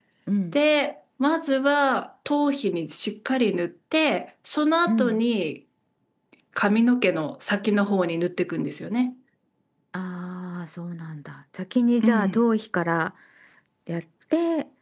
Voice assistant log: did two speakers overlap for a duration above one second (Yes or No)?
No